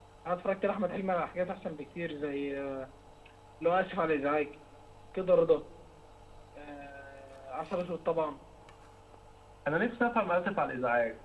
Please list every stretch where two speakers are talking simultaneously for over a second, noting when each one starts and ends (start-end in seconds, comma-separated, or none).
none